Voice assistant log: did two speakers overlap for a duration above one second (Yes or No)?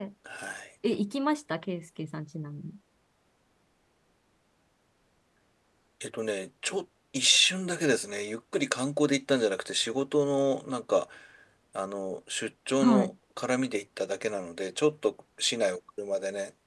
No